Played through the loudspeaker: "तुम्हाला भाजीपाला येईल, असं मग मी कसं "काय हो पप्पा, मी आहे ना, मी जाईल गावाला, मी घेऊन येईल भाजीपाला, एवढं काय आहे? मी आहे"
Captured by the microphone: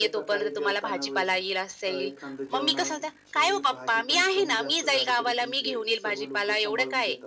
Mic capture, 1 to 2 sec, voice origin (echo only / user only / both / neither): both